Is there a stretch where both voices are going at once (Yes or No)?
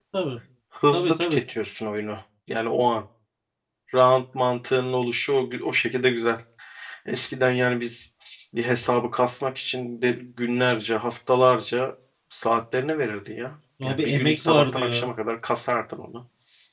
Yes